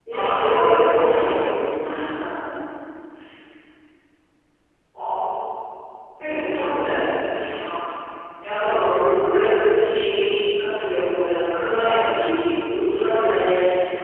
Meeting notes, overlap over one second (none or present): present